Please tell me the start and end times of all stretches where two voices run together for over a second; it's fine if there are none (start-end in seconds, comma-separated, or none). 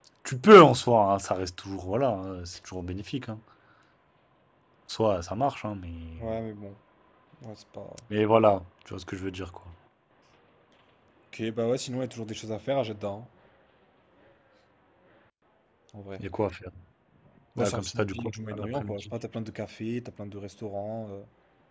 17.6-19.1